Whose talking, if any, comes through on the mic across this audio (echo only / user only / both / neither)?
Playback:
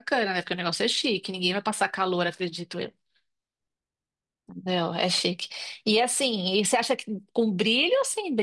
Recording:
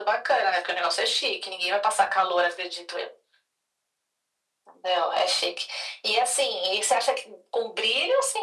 echo only